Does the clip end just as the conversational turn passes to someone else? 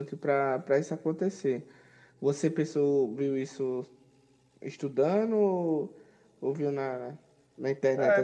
Yes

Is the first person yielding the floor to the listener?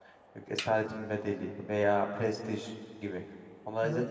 Yes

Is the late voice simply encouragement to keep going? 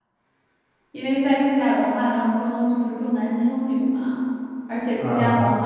Yes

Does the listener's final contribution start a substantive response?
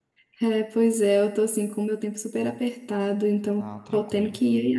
No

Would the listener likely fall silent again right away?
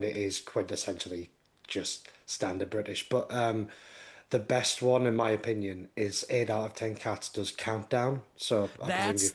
No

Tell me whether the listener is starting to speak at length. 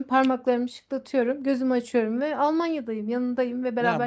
Yes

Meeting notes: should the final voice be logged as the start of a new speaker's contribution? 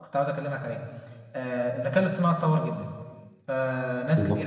No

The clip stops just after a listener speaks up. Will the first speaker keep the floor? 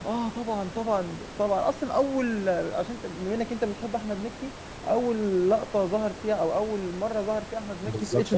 No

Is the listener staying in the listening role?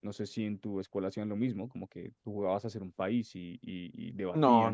No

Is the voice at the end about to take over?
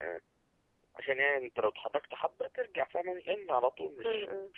No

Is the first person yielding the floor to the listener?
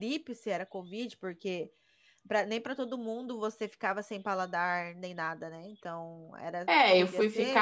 Yes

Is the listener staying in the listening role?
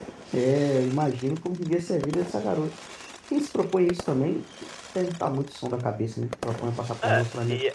No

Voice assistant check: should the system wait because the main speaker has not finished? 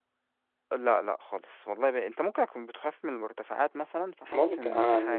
No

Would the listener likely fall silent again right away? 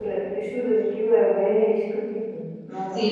No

